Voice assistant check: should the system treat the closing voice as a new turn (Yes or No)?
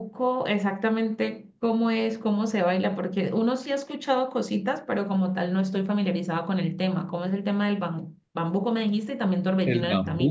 Yes